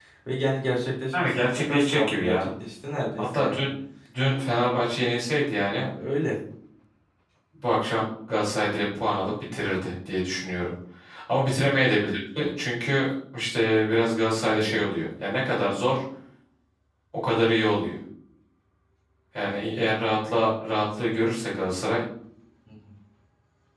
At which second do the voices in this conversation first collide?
1.1 s

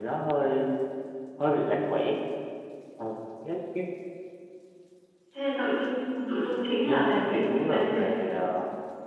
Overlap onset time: 6.8 s

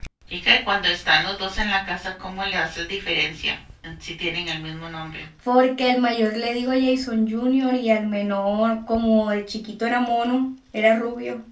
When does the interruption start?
none

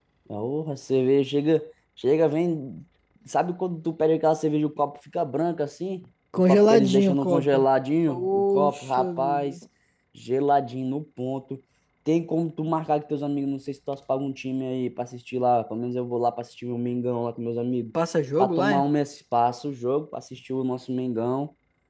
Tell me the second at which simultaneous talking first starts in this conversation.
6.3 s

